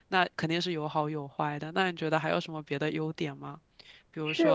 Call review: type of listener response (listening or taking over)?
taking over